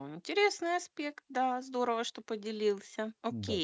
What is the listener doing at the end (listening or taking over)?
taking over